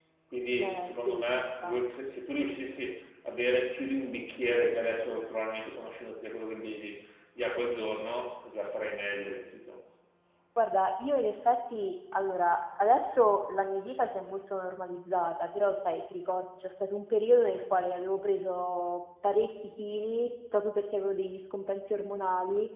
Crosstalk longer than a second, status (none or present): present